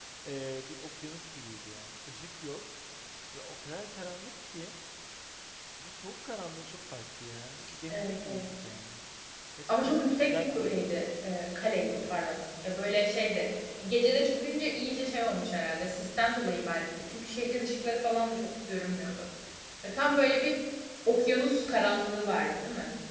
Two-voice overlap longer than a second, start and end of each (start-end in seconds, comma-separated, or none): 9.7-11.0